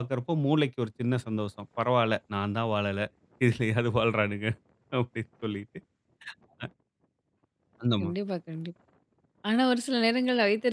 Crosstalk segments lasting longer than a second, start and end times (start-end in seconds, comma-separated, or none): none